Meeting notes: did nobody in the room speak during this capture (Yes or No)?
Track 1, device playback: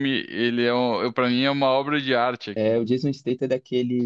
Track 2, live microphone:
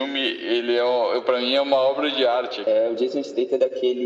Yes